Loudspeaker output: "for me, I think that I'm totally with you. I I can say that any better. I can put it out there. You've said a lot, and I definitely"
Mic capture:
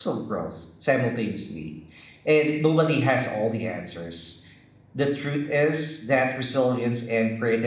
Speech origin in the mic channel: user only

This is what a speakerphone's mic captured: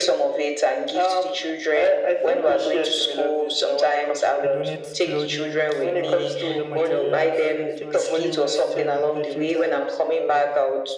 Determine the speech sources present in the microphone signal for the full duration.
both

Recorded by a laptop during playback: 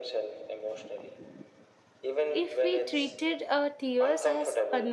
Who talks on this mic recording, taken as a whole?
both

